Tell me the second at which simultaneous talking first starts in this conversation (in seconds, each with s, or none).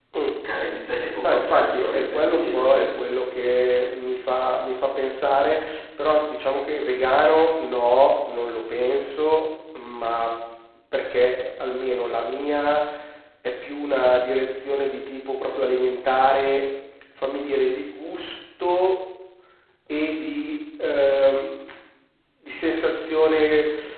1.2 s